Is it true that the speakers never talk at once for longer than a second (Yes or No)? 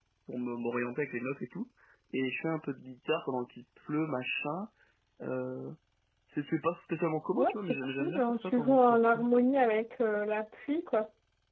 No